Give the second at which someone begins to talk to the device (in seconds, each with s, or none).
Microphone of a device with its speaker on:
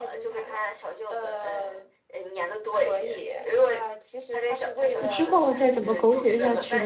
5.0 s